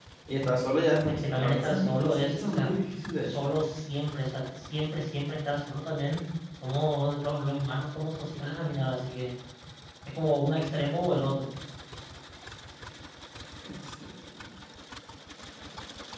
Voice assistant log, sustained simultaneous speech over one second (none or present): present